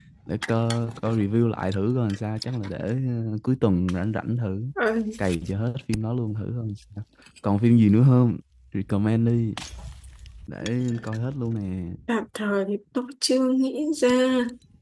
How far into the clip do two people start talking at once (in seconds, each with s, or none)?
none